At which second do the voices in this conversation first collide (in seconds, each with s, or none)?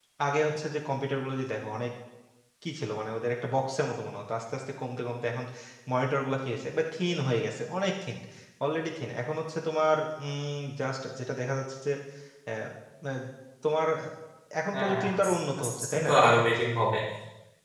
14.7 s